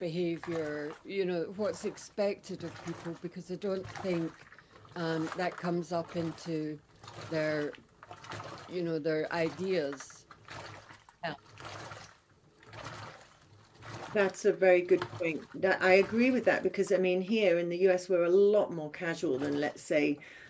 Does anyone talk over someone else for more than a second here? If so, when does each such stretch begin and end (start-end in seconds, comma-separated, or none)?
none